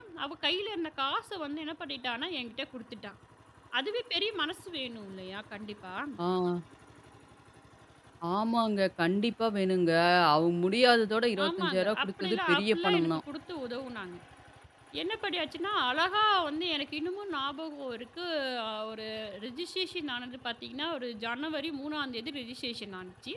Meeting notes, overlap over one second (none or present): present